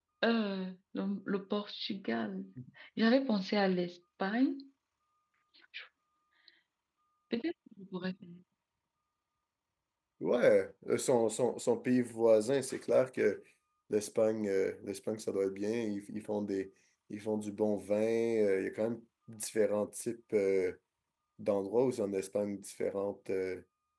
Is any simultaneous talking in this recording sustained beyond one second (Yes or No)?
No